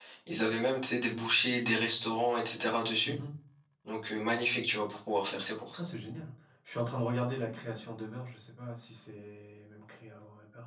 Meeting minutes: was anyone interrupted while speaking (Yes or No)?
No